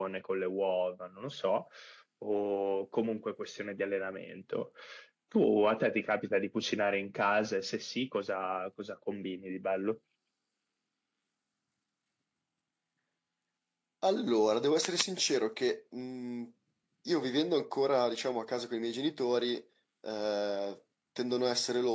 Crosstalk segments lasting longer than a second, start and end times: none

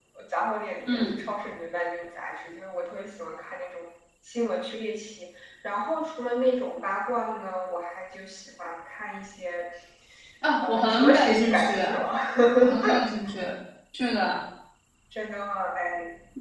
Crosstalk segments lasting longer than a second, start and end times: 10.6-12.0

